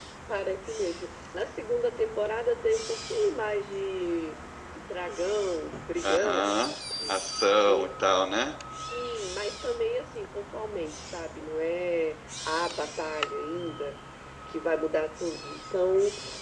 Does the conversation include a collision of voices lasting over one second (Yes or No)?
No